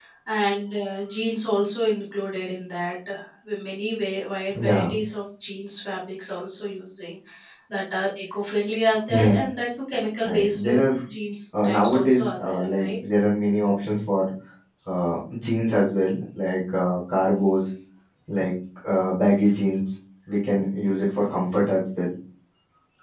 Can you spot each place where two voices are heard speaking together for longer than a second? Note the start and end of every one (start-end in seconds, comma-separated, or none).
11.6-12.9